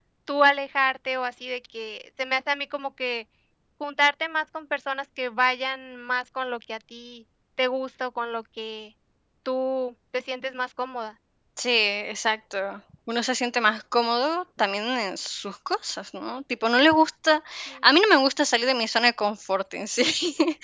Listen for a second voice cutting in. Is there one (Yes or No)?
No